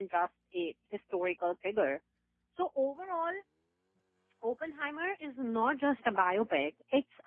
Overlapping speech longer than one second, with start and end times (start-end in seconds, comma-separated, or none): none